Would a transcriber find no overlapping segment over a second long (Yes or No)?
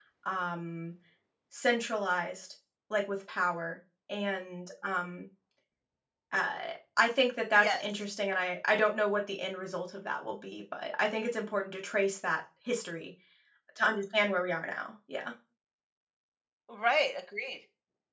Yes